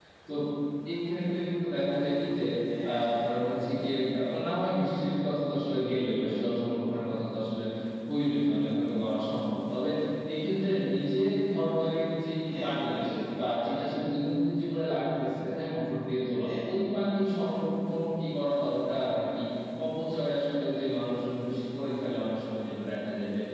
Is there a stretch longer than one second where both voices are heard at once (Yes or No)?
No